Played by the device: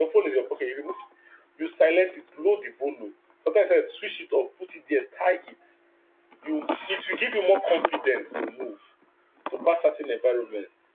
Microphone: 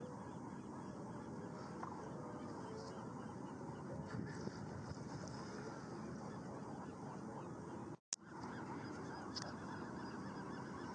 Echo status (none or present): none